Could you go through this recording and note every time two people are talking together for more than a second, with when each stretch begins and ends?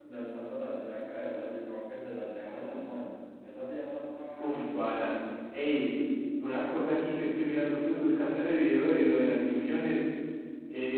none

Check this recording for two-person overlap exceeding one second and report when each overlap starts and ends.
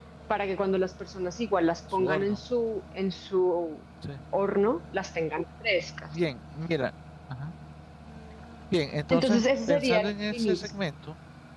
9.1-10.7

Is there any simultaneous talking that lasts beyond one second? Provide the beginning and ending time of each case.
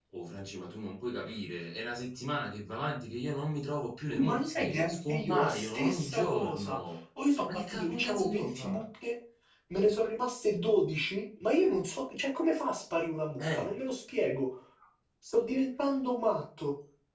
4.1-6.8, 7.5-8.8

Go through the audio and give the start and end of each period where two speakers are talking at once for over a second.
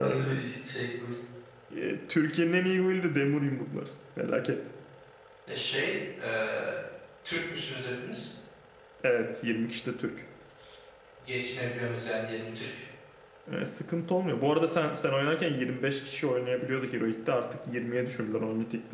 none

